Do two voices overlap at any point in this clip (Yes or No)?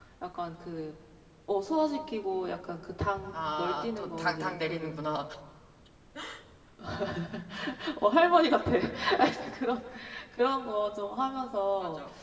Yes